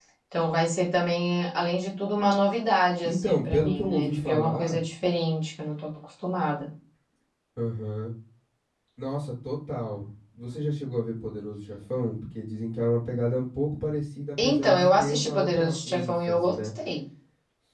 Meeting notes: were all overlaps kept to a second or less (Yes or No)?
No